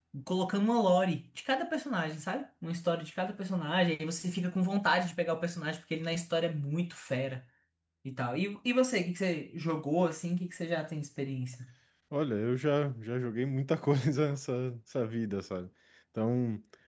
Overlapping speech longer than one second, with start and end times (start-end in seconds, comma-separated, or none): none